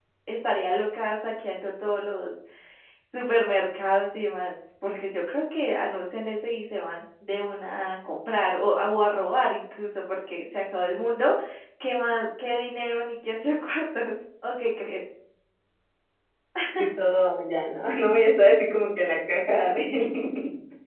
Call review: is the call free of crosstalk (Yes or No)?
Yes